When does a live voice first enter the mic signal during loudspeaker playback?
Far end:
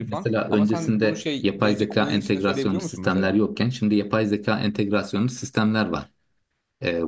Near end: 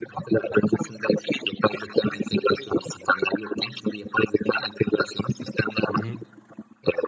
5.9 s

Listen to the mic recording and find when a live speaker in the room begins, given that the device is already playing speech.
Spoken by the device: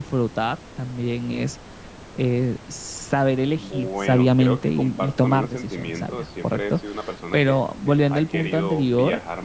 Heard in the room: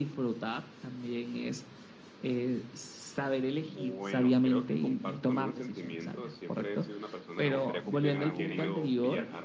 7.3 s

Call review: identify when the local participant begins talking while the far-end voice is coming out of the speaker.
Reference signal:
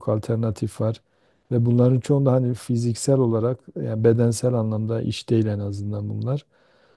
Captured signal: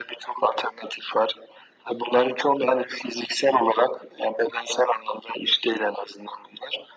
none

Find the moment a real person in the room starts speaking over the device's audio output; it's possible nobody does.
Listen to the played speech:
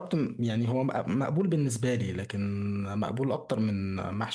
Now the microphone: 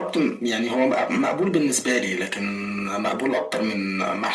none

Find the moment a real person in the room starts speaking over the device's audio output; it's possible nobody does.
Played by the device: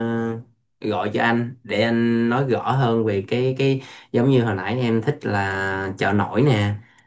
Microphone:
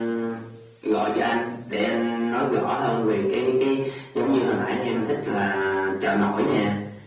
none

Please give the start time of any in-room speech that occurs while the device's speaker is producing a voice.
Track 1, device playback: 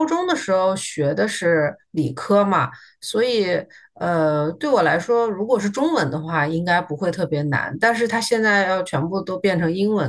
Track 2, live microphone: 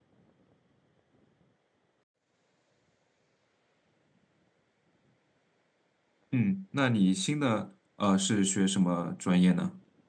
6.3 s

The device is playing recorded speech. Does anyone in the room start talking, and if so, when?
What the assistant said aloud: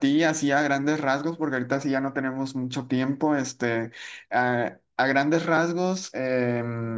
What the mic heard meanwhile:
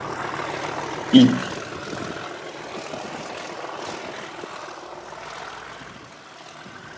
1.1 s

